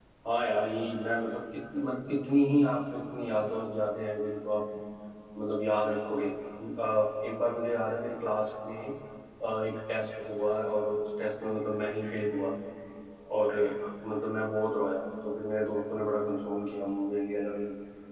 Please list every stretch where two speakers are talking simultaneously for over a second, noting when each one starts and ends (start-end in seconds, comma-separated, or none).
none